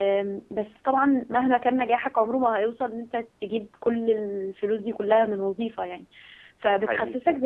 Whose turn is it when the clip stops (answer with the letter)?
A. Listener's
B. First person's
B